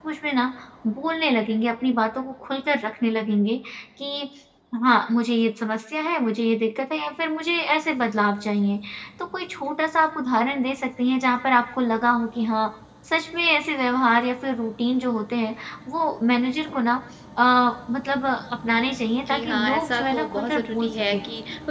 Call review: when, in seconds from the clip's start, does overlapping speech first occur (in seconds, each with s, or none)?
19.3 s